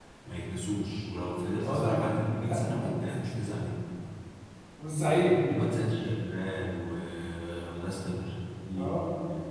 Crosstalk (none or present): present